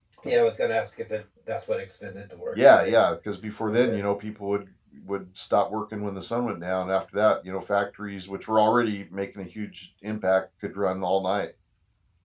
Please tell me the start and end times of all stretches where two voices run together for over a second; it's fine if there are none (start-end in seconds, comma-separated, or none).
none